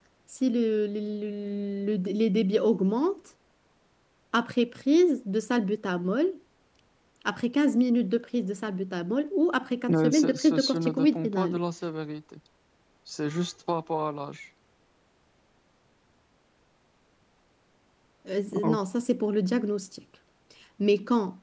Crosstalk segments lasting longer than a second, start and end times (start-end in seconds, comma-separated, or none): 9.9-11.6